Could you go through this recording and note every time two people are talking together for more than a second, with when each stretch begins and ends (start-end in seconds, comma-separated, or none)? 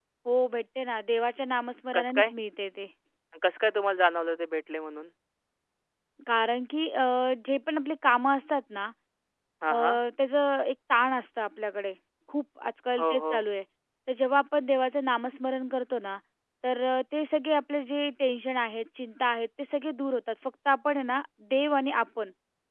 none